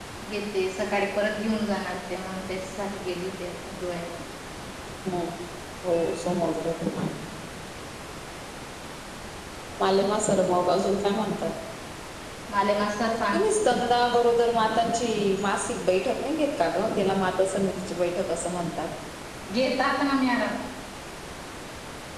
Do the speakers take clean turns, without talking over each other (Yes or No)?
Yes